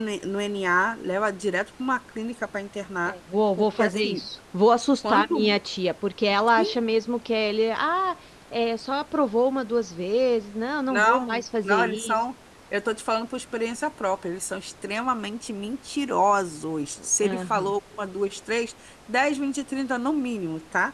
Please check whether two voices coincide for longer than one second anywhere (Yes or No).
Yes